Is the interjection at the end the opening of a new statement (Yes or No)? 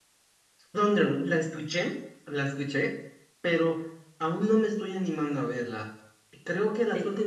No